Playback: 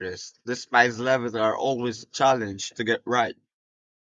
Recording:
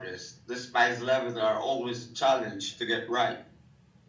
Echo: present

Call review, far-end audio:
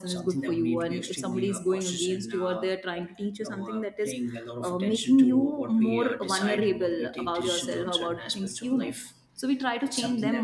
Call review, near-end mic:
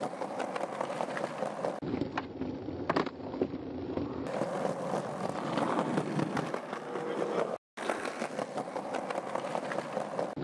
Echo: none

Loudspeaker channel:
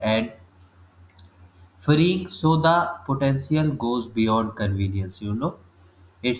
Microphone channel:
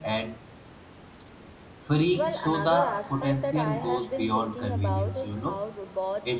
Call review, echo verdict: present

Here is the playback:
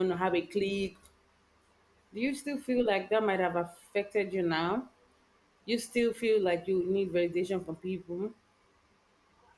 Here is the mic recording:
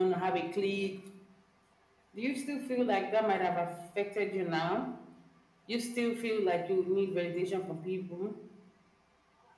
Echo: present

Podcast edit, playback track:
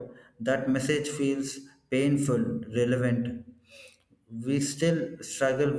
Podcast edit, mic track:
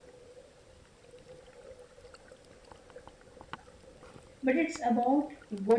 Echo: none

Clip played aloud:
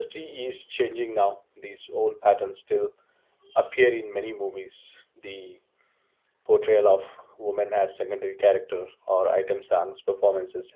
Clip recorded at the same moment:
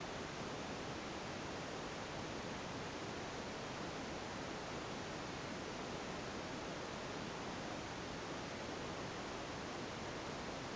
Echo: none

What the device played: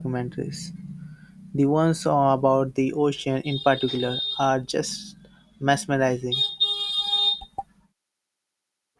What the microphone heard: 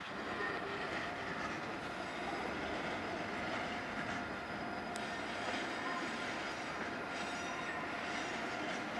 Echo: none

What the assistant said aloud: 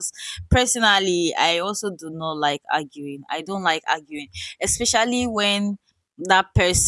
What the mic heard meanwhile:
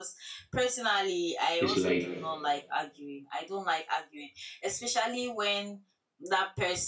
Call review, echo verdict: present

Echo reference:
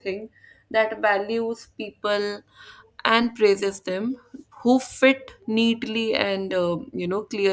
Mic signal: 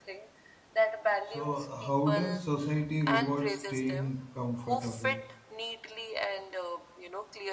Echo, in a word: present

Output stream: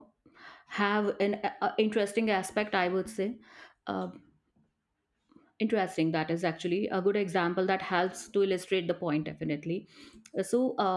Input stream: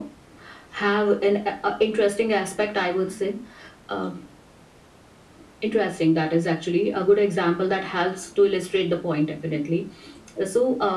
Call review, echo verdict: present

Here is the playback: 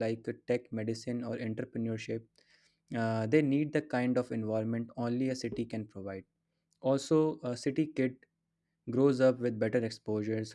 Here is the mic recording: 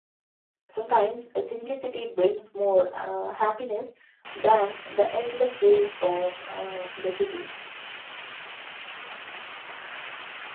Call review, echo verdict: none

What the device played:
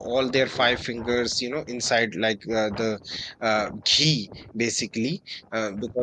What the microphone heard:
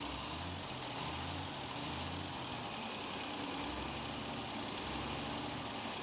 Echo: none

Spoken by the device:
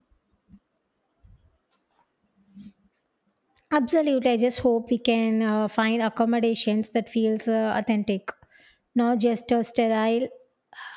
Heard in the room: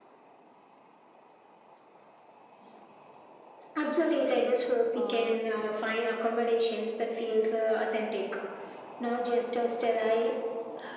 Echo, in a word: present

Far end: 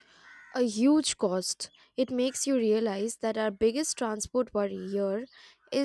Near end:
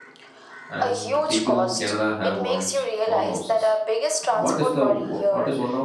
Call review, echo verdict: present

